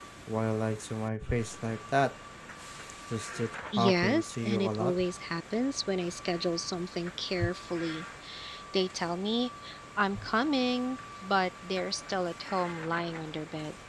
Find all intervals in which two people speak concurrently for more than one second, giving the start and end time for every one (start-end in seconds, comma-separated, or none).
3.7-5.0